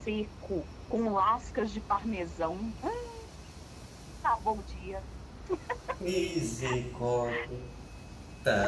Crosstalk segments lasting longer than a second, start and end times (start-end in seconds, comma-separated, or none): none